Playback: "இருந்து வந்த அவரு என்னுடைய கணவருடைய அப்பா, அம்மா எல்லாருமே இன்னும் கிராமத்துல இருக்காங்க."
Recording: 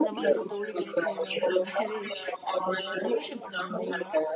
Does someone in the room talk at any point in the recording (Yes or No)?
Yes